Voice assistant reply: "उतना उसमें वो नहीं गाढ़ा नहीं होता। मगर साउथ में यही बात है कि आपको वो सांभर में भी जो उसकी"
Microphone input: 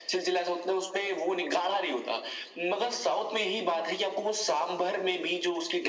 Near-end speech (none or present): none